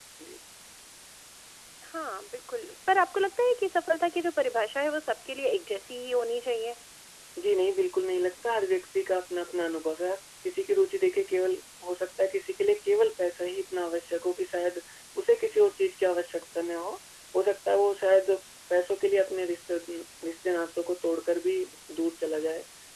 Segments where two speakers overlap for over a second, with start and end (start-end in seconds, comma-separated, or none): none